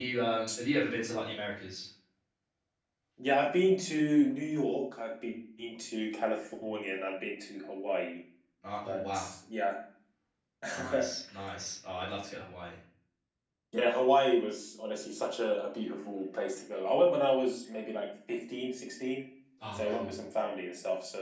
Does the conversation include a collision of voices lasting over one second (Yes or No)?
No